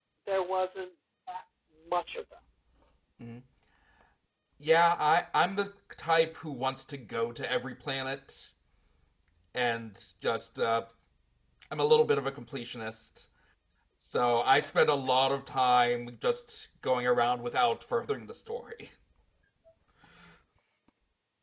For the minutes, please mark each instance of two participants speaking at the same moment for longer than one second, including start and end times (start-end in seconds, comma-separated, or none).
none